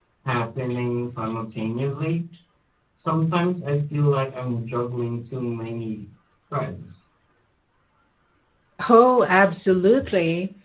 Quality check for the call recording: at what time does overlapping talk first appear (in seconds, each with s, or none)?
none